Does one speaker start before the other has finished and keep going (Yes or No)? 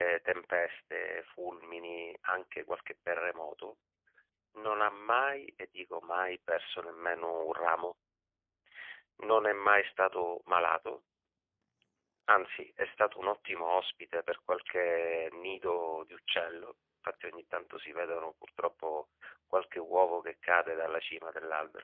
No